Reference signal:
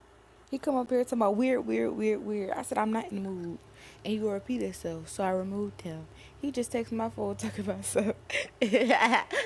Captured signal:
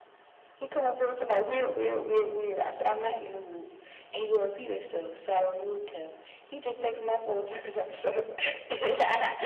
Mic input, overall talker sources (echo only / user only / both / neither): echo only